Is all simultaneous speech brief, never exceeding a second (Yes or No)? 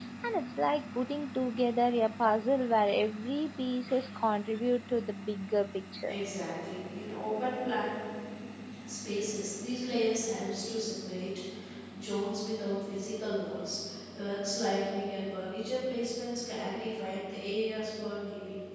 Yes